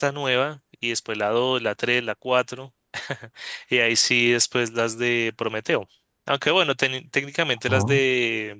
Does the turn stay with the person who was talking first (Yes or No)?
Yes